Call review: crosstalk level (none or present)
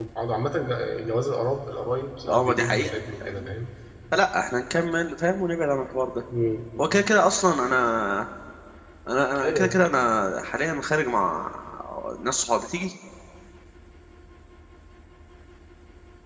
present